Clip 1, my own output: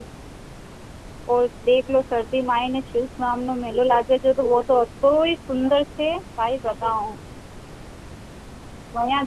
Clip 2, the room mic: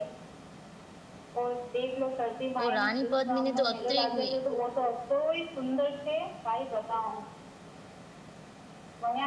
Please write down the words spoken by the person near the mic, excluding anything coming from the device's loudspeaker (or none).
ઓ રાની પદ્મિની તો અત્રી ગઈ